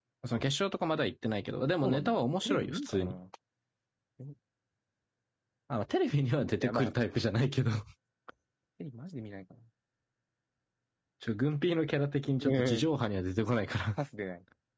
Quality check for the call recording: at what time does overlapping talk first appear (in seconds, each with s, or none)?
1.8 s